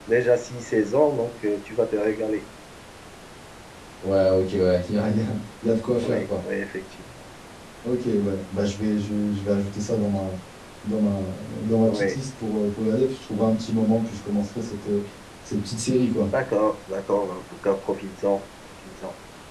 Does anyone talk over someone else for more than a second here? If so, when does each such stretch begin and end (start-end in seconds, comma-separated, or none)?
none